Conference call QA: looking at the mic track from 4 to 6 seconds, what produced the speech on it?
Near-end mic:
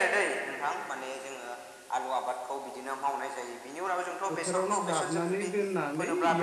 both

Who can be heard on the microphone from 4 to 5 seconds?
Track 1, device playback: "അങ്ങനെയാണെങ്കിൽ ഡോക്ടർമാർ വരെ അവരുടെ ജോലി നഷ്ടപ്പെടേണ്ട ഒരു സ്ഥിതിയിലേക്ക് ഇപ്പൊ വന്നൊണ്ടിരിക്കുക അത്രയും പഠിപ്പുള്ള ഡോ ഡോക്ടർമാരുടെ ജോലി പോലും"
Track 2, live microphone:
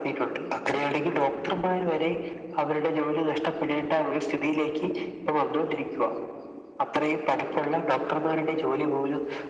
echo only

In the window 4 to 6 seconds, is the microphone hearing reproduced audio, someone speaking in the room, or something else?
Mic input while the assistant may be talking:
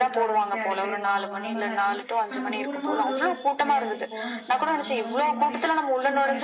both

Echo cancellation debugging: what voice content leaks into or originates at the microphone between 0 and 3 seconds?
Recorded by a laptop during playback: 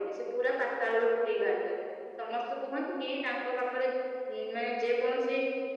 echo only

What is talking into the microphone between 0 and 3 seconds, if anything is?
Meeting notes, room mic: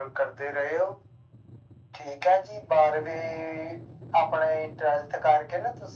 echo only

